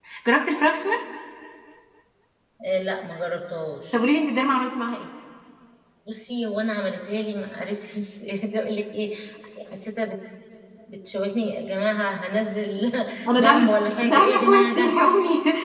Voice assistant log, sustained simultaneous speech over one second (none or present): present